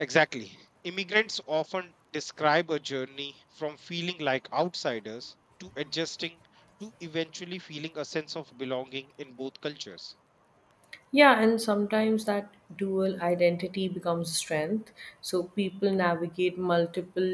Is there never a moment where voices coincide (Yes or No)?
Yes